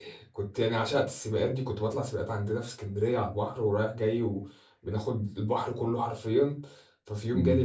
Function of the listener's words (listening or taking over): listening